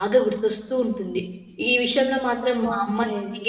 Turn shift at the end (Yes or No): No